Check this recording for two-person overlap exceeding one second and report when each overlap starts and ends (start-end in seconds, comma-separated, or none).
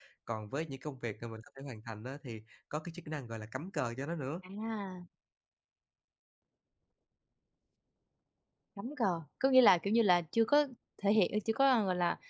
none